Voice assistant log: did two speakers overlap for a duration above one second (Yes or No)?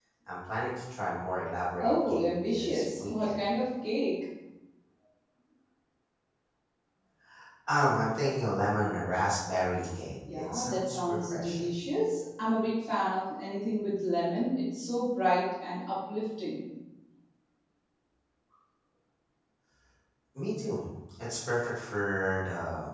Yes